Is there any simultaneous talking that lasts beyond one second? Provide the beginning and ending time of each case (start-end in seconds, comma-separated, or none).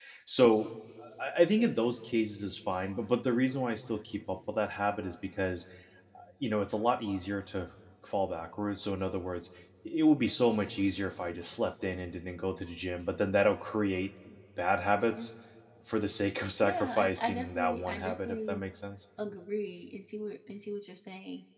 16.6-18.6